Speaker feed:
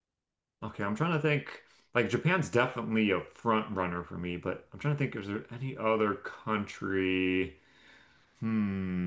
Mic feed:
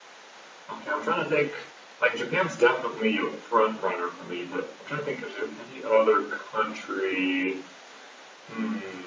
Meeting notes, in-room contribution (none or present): none